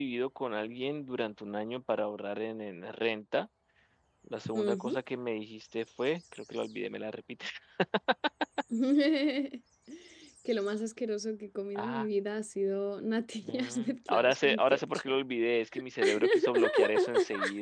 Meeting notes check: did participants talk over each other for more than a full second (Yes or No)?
Yes